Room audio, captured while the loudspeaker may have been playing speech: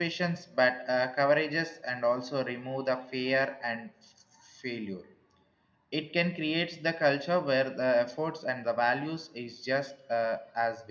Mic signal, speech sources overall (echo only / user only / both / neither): user only